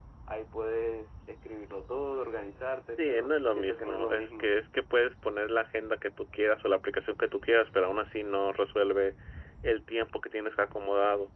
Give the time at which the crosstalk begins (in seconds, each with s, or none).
3.0 s